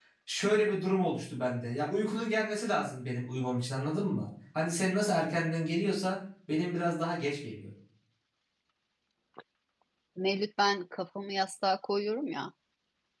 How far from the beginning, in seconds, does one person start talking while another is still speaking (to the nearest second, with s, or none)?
none